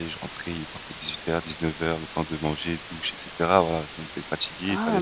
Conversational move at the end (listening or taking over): taking over